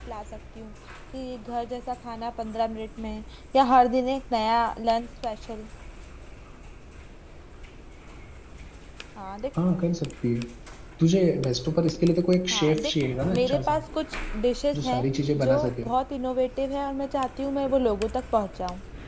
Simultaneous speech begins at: 12.5 s

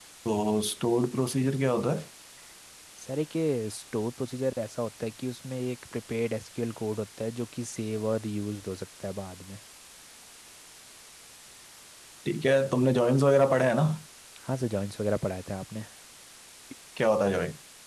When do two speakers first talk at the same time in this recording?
none

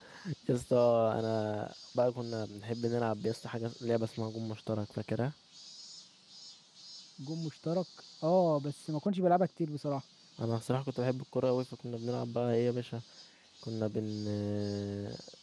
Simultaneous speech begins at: none

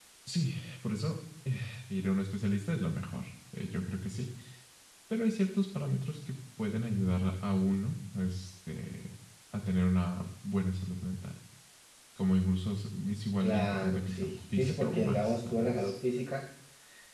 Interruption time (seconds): 13.4 s

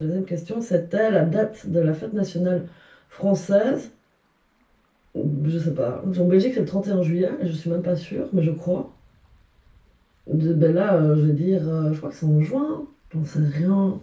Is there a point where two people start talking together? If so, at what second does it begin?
none

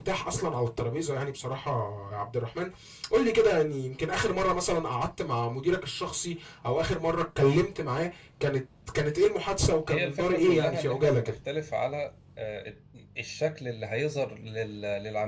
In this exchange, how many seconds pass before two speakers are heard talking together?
9.9 s

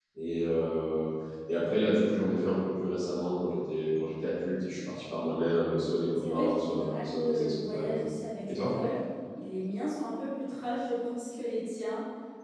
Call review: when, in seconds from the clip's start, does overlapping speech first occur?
6.3 s

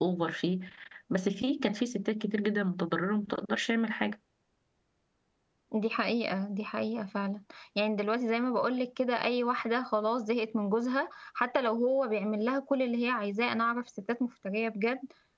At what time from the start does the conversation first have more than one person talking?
none

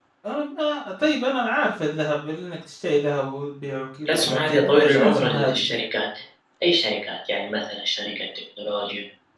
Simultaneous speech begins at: 4.0 s

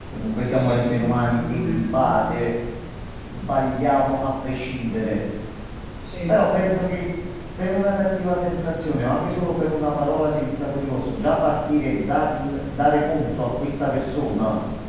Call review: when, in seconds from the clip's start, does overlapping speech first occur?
0.5 s

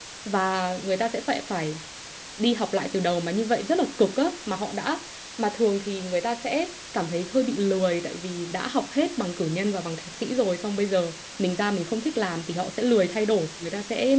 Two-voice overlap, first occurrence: none

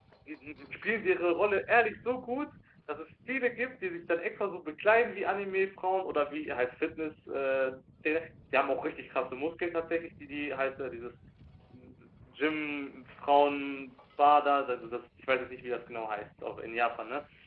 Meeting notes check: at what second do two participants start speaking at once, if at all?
none

